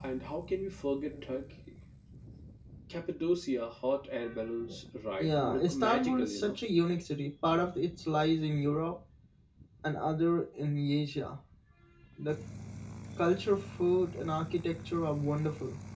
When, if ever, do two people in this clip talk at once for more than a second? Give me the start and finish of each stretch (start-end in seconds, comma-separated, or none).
5.2-6.6